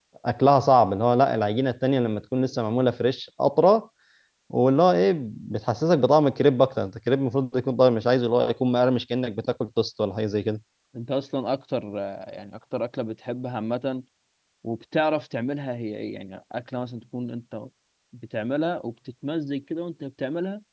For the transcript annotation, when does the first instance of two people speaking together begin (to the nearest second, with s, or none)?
none